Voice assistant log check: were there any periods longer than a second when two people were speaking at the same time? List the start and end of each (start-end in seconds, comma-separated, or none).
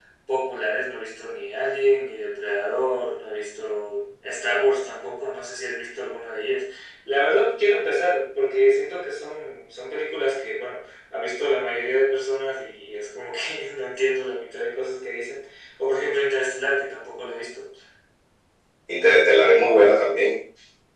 none